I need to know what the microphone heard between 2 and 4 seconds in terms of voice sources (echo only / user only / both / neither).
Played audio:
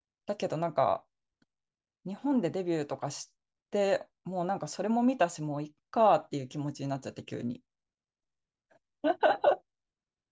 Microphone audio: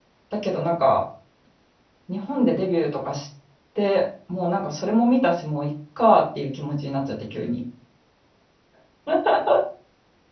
echo only